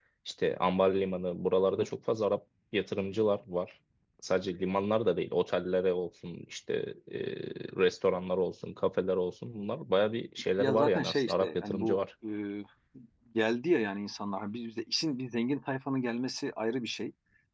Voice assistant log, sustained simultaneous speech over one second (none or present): present